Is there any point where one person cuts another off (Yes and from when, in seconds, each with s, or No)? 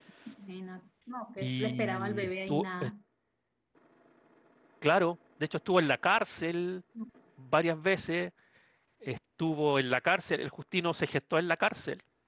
Yes, from 1.4 s